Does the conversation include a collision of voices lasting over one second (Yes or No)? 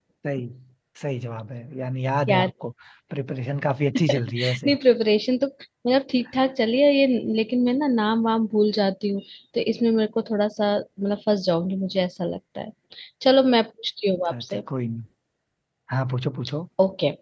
No